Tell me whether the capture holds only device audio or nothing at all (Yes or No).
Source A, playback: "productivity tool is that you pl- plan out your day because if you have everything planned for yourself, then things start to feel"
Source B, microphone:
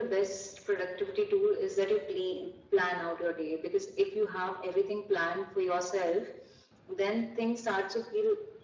Yes